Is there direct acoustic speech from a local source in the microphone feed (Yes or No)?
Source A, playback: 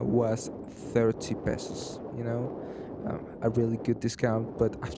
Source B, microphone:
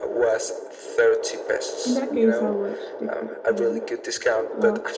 Yes